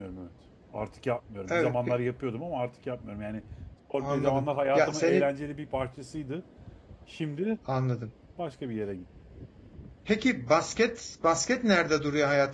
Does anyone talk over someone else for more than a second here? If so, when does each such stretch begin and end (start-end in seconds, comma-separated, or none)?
4.0-5.3